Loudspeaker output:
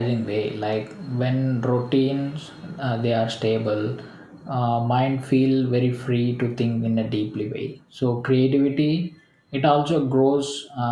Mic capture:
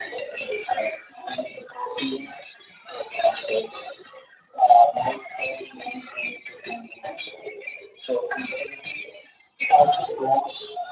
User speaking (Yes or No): No